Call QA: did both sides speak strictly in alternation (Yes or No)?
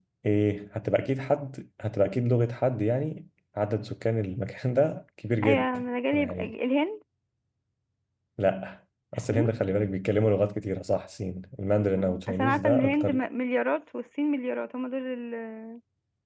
No